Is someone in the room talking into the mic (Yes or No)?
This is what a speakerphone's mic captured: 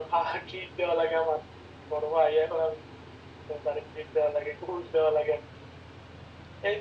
No